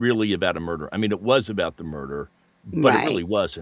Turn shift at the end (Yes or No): No